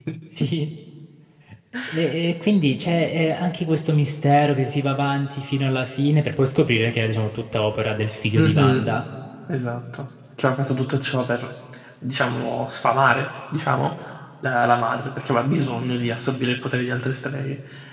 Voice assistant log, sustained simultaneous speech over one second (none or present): none